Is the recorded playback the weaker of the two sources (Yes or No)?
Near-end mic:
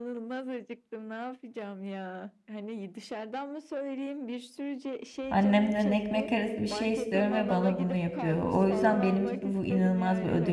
Yes